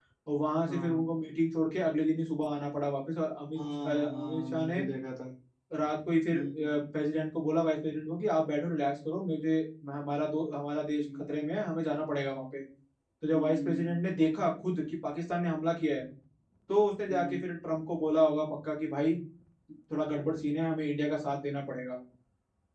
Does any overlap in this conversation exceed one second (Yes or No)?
Yes